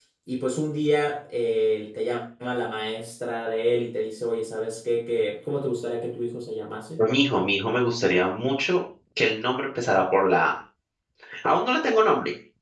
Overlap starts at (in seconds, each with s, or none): none